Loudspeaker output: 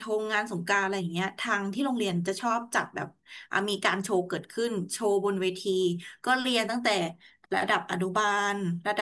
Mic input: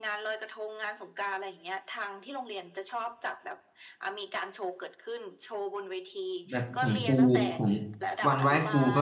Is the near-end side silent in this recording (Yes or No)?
No